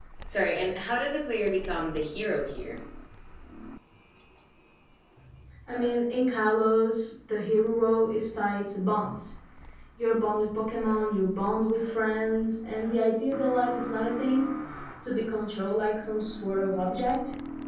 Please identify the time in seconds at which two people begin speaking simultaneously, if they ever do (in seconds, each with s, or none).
none